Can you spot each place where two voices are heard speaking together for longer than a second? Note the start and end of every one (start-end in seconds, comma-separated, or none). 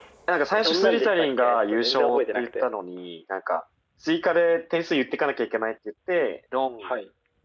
0.6-2.7